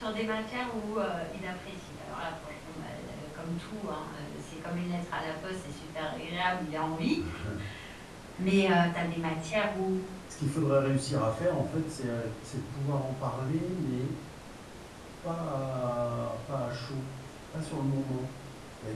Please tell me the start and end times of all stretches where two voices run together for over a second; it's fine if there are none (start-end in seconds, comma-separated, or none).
none